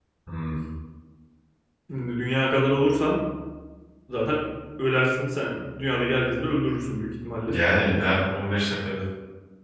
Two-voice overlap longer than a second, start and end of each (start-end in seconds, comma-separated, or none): none